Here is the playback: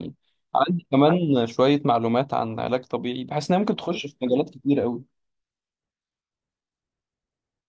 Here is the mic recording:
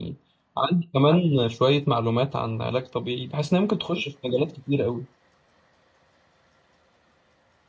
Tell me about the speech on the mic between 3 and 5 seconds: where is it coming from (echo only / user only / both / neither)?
echo only